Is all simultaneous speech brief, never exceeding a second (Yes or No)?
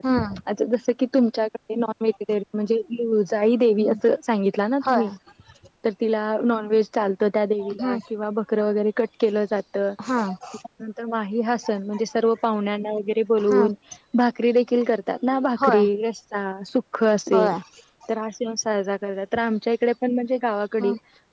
Yes